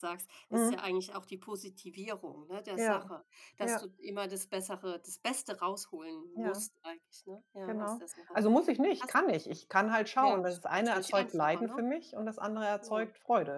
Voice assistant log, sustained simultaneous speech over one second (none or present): present